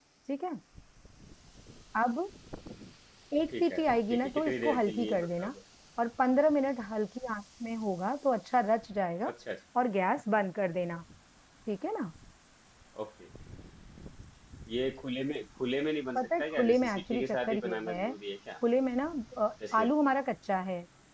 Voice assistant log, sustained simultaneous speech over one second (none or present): present